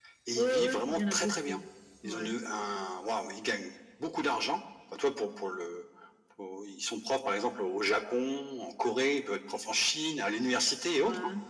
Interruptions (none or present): present